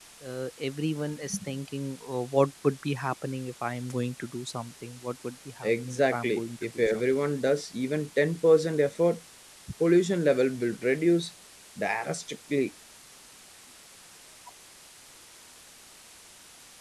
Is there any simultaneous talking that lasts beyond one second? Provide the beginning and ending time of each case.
5.6-7.0

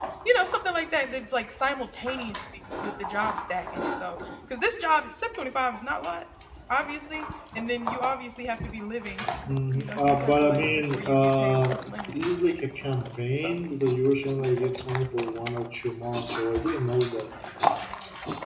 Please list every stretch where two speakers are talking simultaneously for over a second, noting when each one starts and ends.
9.7-11.8

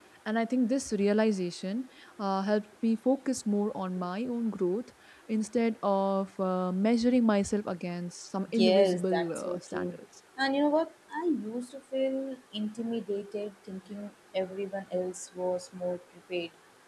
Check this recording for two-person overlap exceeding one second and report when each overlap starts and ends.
8.6-10.0

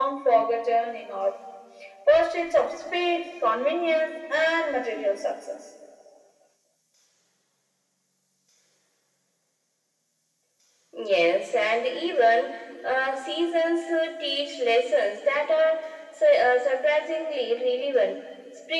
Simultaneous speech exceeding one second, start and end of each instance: none

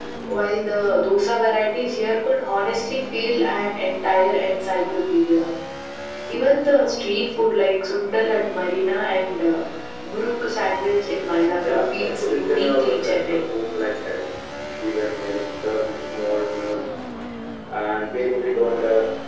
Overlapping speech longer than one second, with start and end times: 11.7-13.4

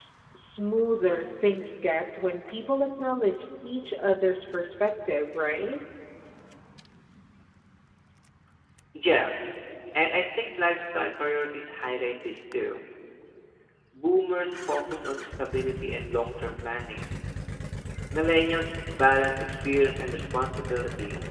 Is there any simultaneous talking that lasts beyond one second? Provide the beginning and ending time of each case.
none

